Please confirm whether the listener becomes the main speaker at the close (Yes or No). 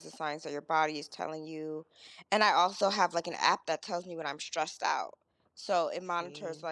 No